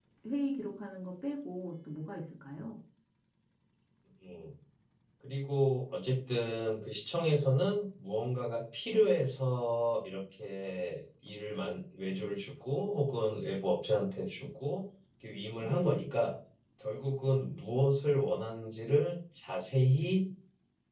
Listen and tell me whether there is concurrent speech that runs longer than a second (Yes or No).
No